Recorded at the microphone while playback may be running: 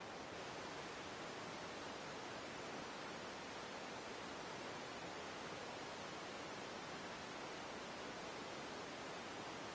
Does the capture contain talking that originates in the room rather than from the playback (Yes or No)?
No